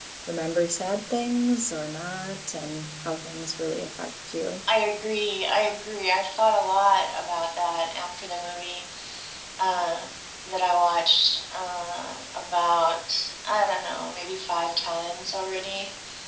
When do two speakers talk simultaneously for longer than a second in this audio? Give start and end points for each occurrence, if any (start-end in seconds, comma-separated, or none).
none